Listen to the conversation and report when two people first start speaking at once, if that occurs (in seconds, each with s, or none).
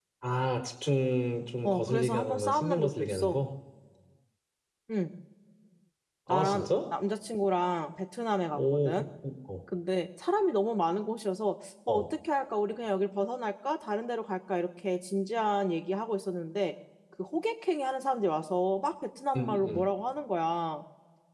1.6 s